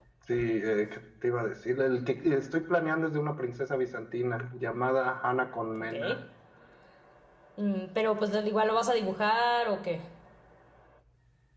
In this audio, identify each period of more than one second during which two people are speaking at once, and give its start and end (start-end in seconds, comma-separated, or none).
none